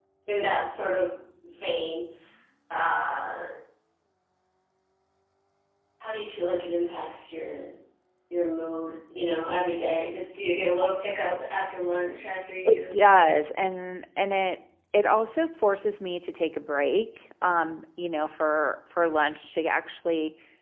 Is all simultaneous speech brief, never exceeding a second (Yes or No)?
Yes